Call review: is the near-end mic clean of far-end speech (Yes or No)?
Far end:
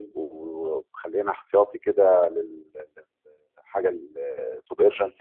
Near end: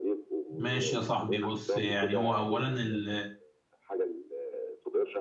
No